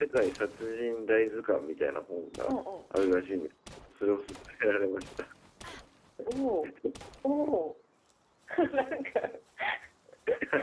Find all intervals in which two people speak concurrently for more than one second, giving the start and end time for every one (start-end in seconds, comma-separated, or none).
none